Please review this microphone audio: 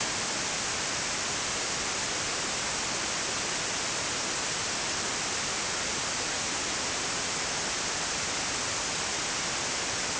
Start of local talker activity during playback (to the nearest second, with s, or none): none